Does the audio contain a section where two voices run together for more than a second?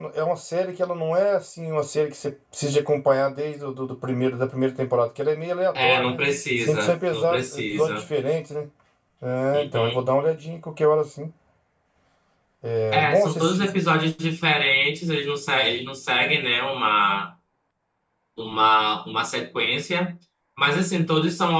Yes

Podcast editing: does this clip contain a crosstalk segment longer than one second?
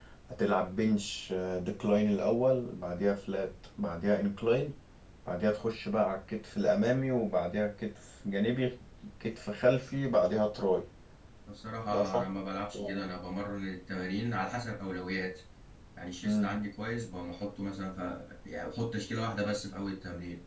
No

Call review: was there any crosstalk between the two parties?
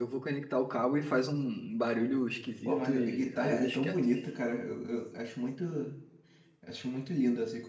Yes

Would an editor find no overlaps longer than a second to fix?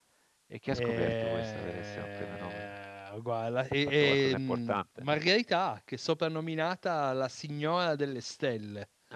No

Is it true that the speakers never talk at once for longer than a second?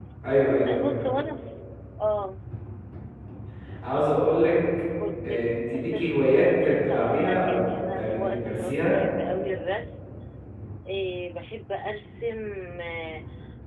No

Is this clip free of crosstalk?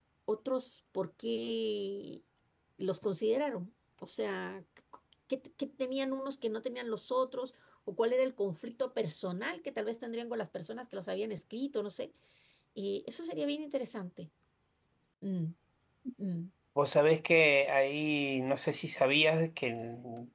Yes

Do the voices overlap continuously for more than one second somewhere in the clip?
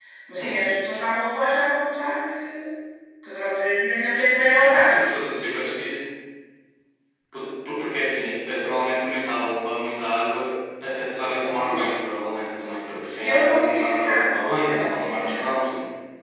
Yes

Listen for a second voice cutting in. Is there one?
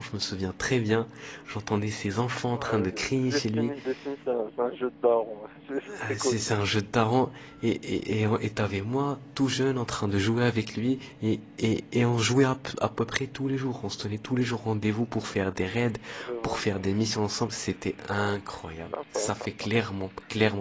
Yes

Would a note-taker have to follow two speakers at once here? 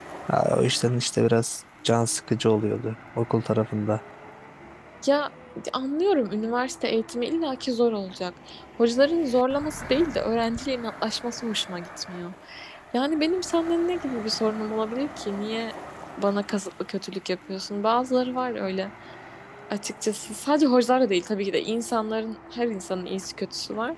No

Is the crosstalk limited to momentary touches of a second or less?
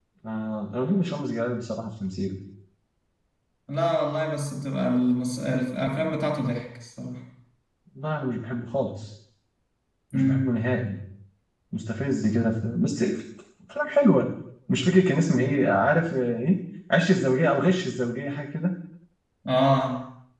Yes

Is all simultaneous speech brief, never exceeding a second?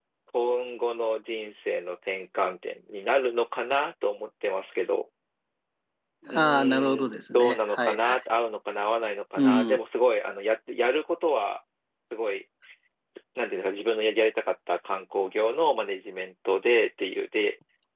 No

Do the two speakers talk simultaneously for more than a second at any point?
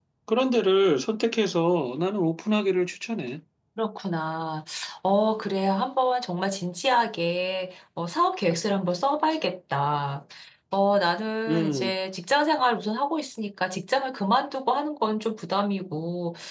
No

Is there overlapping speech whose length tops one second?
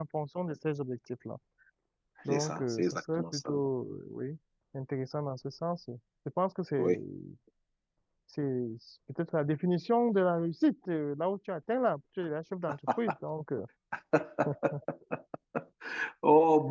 Yes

